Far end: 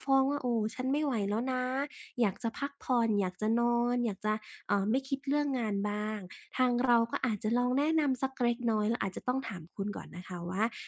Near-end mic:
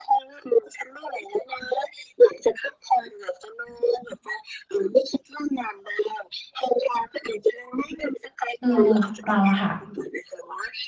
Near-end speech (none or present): present